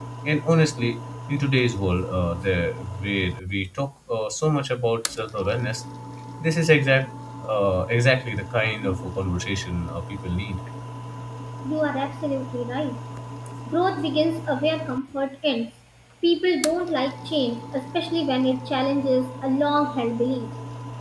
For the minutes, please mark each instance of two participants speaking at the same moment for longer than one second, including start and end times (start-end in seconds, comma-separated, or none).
none